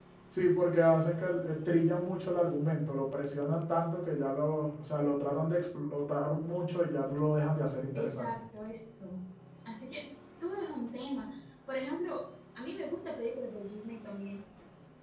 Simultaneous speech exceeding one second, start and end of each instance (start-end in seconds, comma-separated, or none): none